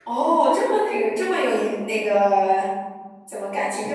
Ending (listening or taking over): listening